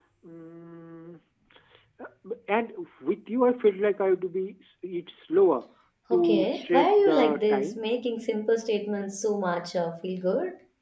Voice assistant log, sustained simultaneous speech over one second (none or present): present